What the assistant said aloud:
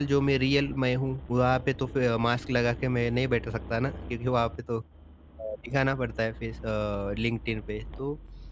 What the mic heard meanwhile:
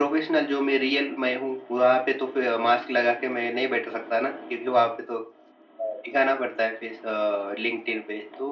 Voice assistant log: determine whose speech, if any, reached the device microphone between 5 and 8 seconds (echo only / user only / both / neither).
echo only